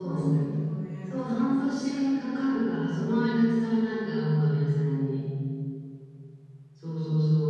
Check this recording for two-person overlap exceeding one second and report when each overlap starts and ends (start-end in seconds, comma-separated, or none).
1.1-3.4